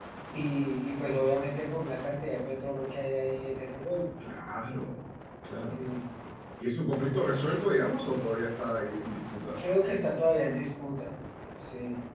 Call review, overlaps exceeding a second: none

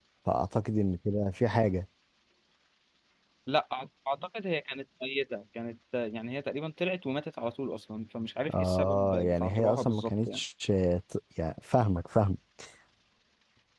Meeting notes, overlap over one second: present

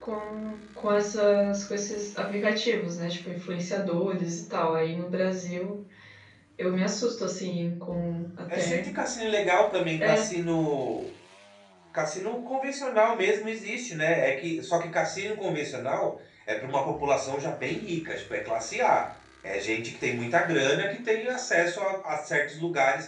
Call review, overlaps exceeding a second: none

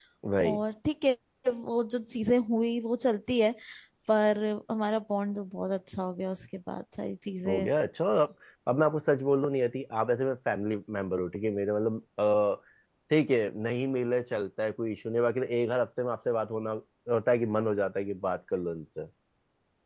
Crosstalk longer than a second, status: none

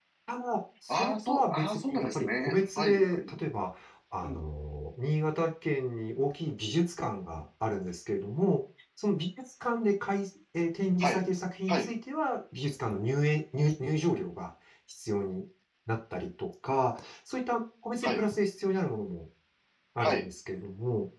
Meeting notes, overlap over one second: present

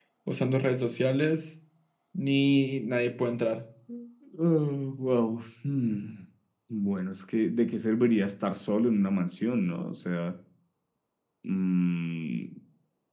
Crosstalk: none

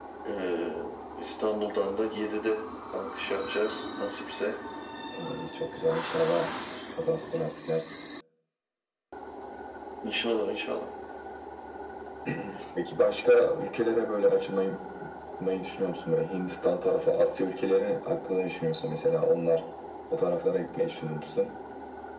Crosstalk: none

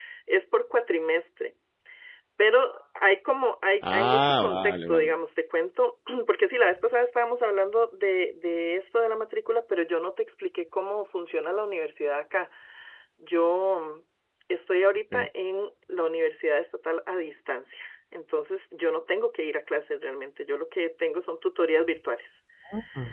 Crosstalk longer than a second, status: present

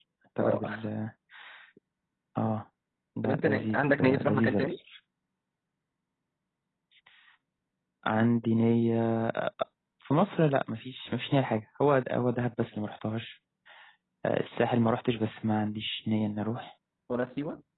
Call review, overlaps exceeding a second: present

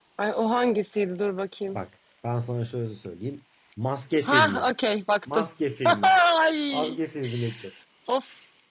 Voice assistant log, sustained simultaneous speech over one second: none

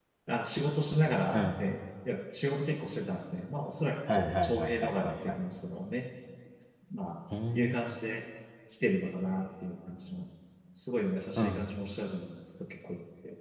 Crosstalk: present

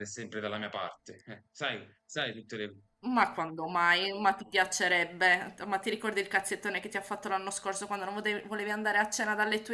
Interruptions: none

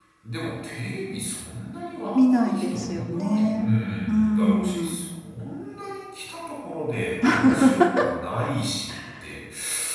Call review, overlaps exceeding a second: present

